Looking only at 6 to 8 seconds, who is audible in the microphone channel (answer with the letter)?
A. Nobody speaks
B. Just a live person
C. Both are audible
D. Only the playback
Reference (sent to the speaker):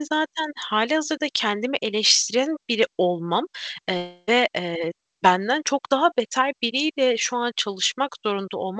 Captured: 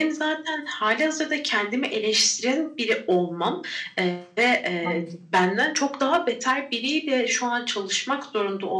D